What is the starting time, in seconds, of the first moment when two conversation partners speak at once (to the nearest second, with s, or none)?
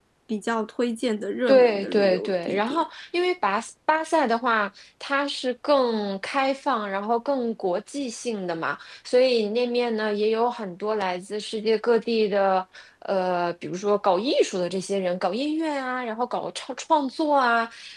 1 s